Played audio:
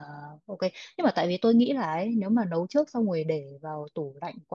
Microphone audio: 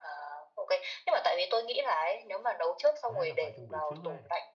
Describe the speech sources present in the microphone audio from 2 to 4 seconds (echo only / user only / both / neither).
both